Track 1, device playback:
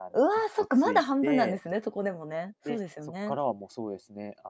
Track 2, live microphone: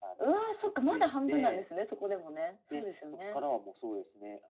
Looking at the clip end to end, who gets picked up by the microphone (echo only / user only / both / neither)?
echo only